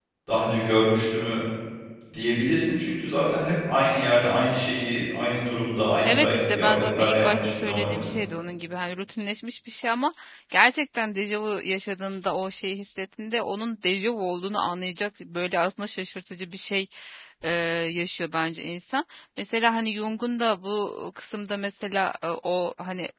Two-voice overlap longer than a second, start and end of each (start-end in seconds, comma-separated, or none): 6.0-8.2